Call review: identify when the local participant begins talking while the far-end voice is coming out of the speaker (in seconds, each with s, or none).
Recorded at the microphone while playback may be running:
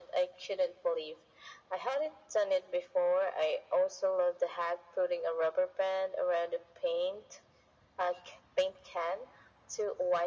none